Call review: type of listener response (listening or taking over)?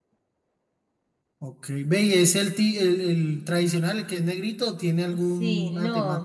taking over